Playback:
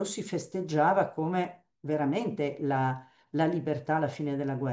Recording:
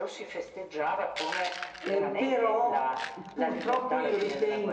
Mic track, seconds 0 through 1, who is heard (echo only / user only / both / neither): echo only